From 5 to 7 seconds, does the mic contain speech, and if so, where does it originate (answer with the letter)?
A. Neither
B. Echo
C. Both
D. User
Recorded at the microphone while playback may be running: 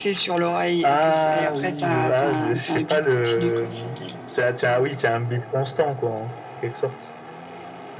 B